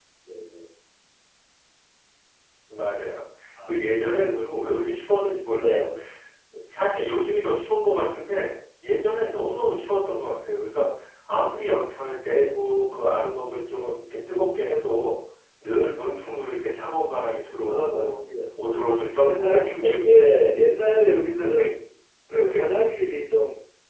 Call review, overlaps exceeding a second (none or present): present